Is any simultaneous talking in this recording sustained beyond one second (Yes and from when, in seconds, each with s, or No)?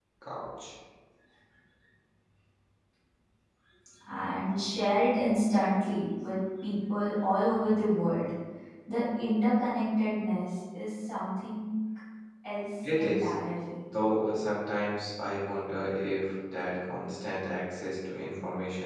No